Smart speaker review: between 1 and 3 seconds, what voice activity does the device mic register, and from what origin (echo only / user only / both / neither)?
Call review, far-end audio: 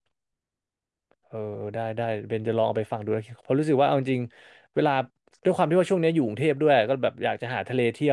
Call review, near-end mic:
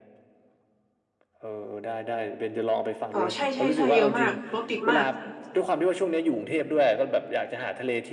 echo only